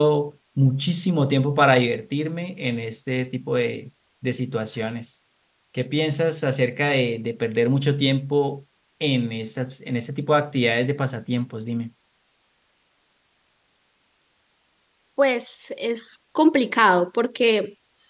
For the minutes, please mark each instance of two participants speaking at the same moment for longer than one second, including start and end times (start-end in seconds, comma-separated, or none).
none